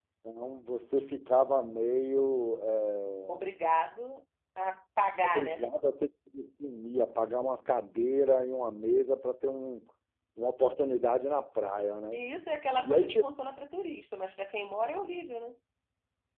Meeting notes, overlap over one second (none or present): none